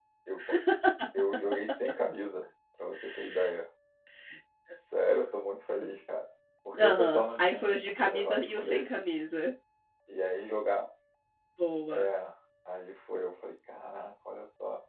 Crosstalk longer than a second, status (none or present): present